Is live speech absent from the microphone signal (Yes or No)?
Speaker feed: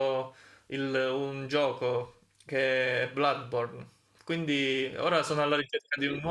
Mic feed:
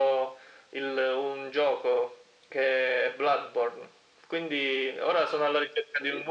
Yes